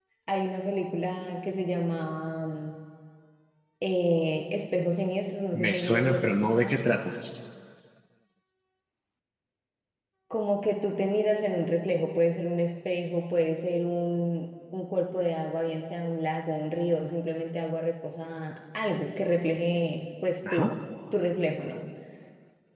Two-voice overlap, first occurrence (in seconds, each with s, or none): 5.5 s